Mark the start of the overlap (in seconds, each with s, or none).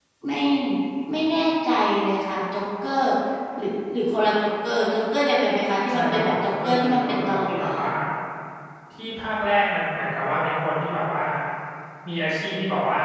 5.9 s